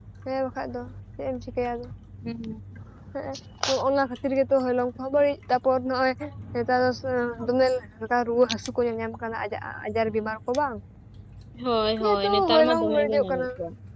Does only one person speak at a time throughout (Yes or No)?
No